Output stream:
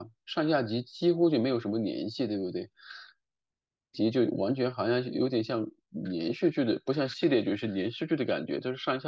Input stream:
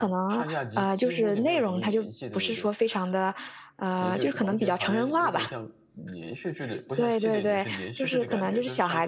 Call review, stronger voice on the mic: user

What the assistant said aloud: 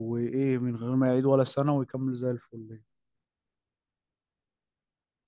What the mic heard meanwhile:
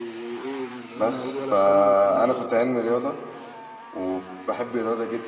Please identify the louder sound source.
user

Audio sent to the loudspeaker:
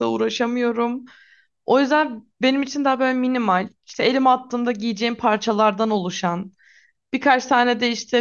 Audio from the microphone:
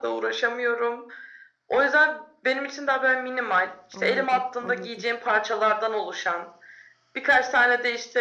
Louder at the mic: echo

